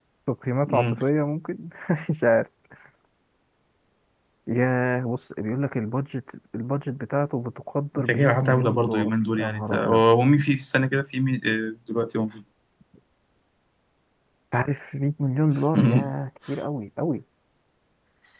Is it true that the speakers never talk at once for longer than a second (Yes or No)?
No